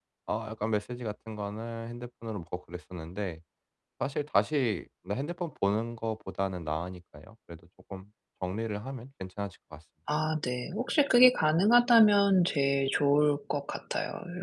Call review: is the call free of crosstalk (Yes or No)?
Yes